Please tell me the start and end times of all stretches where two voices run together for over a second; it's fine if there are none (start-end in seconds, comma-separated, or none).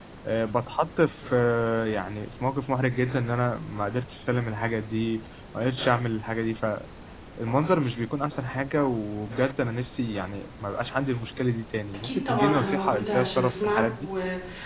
12.0-14.1